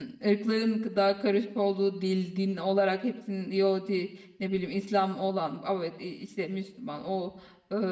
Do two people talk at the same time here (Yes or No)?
No